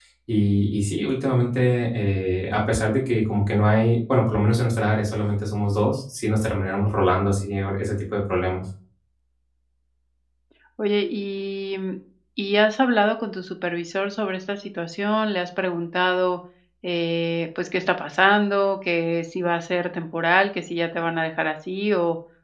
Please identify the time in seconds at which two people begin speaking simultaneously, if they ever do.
none

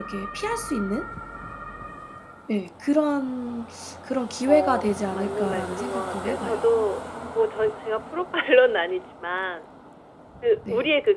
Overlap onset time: 4.5 s

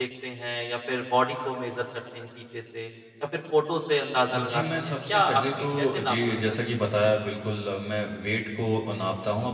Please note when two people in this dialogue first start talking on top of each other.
4.3 s

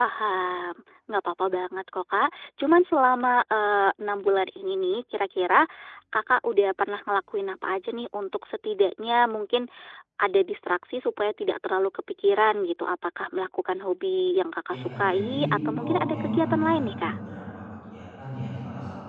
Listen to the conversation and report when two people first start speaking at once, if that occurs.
14.7 s

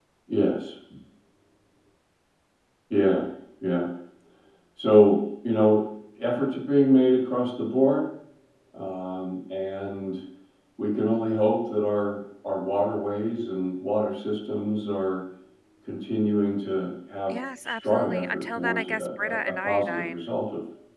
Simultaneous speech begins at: 17.3 s

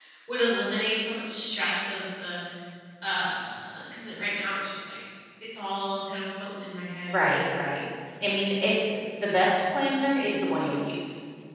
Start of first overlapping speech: none

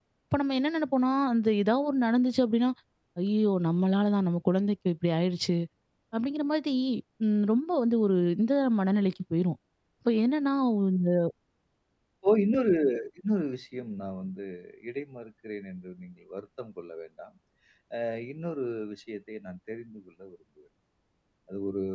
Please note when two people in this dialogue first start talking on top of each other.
none

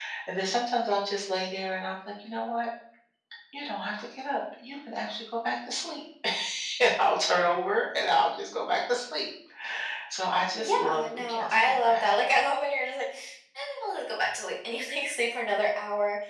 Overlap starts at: 10.6 s

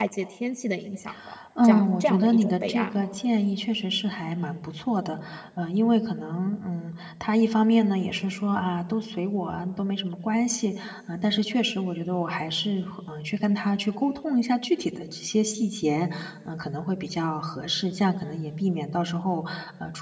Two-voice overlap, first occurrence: 1.6 s

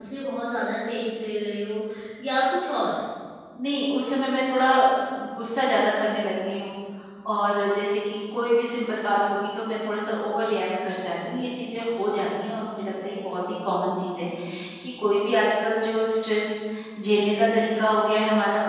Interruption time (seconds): none

